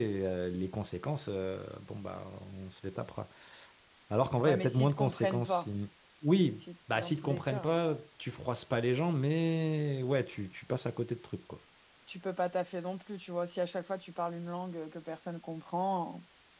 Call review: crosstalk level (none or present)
present